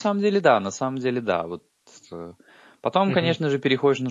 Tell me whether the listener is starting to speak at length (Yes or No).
No